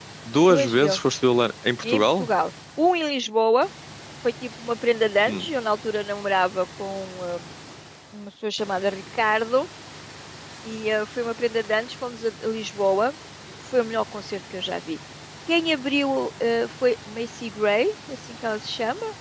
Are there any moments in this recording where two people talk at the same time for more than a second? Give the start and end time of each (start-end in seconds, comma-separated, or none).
none